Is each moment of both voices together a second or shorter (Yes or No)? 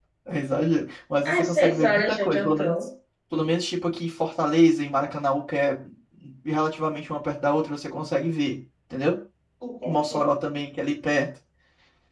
No